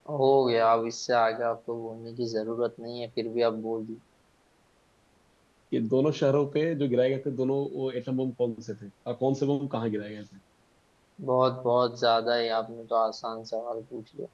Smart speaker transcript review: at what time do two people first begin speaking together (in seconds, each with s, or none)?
none